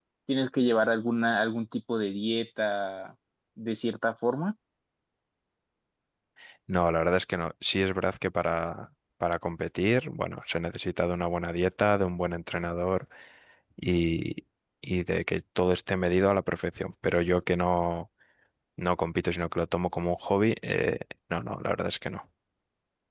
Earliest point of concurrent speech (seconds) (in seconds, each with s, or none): none